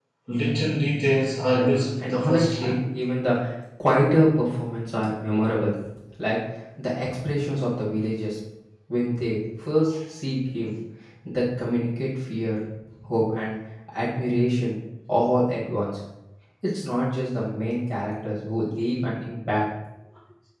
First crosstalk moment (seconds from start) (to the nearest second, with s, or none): 2 s